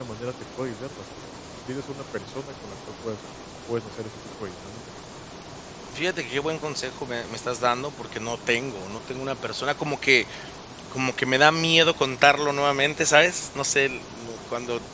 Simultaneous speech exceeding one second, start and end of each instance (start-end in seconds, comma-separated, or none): none